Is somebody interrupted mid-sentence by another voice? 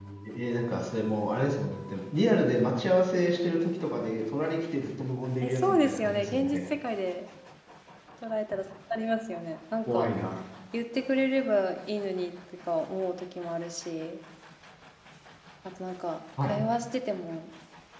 Yes, from 5.4 s

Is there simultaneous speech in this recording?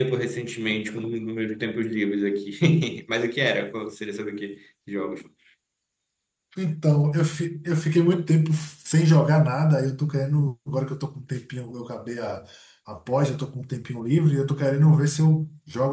No

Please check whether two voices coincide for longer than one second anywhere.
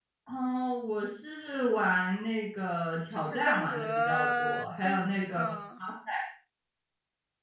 Yes, from 3.1 s

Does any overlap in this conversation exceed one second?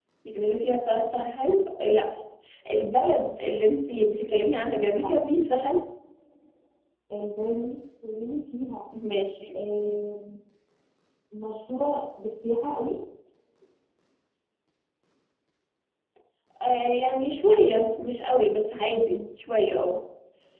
No

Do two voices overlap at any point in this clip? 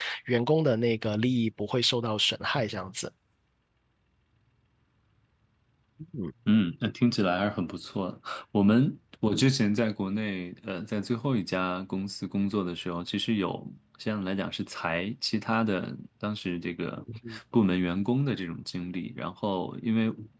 No

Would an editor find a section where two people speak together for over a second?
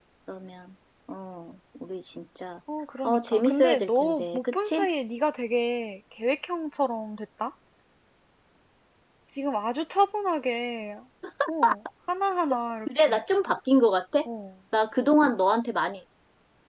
Yes, from 3.0 s

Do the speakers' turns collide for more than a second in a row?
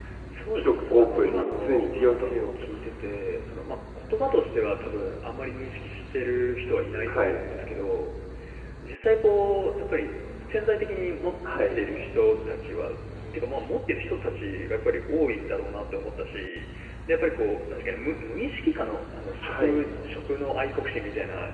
Yes, from 0.6 s

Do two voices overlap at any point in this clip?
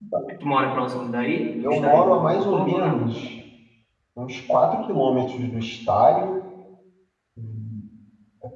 Yes, from 1.6 s

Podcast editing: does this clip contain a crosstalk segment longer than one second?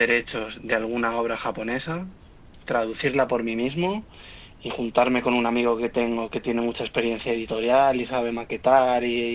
No

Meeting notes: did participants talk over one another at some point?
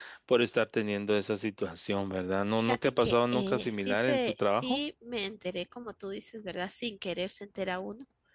Yes, from 2.6 s

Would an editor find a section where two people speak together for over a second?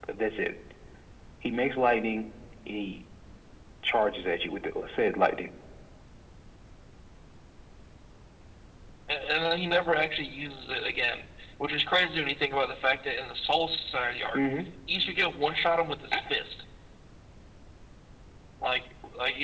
No

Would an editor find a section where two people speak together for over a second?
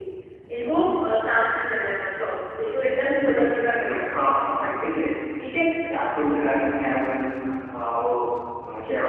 Yes, from 2.8 s

